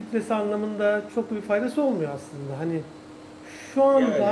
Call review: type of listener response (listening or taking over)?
listening